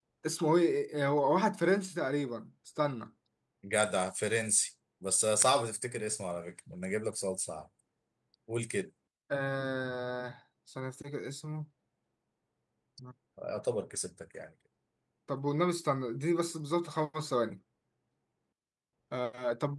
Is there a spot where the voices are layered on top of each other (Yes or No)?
No